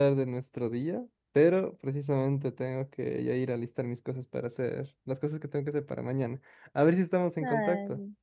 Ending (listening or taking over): taking over